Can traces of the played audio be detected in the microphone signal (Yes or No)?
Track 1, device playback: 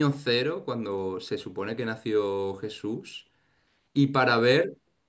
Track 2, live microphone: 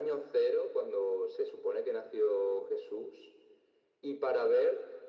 Yes